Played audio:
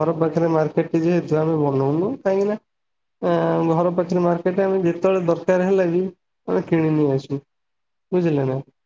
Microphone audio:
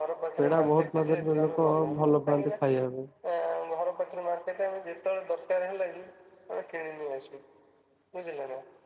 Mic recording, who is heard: both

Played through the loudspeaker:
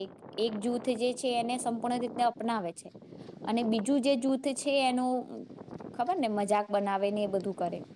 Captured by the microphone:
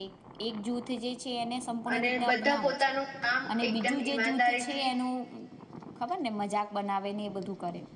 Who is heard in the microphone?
both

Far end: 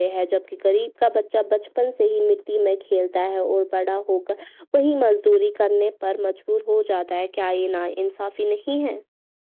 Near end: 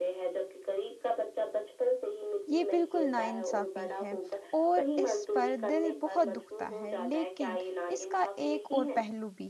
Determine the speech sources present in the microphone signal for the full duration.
both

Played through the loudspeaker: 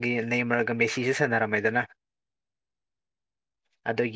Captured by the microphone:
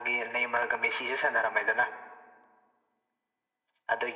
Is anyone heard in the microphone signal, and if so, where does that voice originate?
echo only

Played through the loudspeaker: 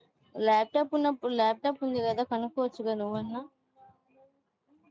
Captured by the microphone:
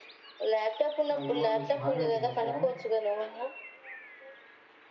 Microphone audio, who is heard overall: both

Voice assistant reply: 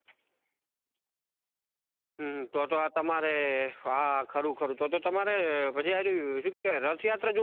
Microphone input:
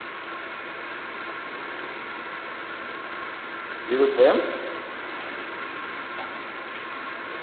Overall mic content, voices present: user only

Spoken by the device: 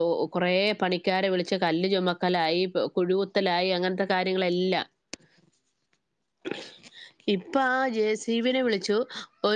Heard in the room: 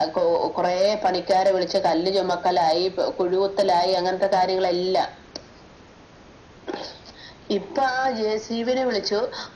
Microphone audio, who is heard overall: echo only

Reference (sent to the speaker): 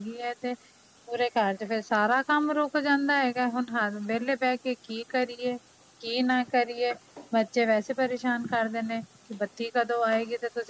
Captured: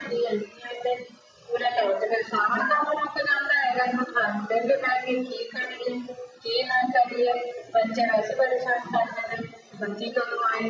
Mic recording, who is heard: echo only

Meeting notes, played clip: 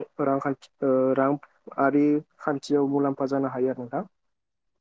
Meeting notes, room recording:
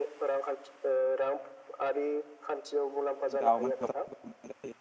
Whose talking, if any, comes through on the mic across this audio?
both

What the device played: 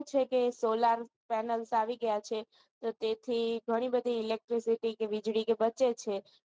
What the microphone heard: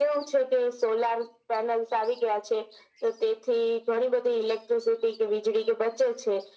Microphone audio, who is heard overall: echo only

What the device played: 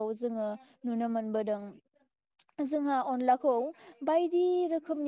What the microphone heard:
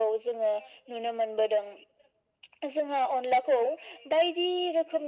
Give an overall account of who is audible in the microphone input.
echo only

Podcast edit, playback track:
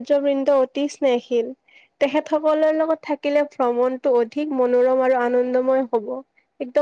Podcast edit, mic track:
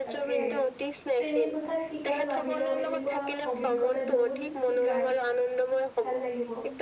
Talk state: both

